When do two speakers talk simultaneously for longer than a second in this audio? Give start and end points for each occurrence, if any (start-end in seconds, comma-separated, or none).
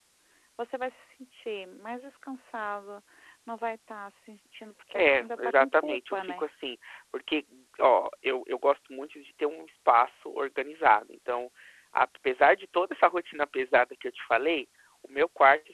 4.9-6.4